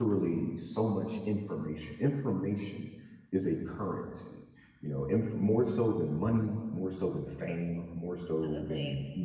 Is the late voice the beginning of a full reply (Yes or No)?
No